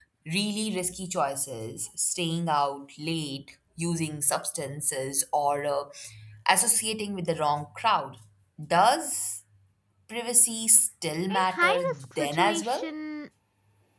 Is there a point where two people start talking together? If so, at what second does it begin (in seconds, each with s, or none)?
11.3 s